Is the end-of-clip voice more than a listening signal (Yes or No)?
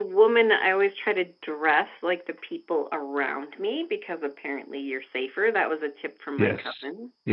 Yes